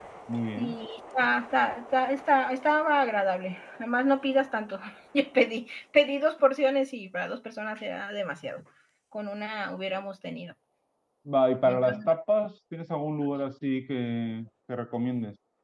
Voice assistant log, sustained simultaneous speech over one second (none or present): none